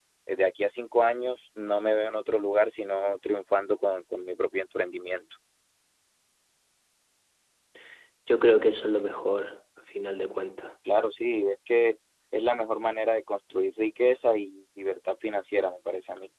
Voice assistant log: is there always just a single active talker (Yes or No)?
Yes